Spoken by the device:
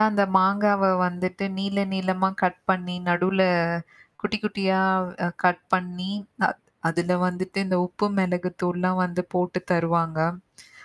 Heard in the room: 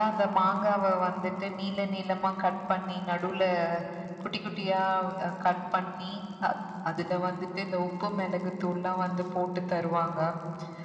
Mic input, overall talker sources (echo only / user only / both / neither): echo only